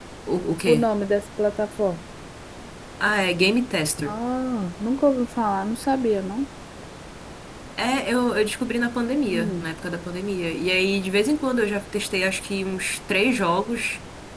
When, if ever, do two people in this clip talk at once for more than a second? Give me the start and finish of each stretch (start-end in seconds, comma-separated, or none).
none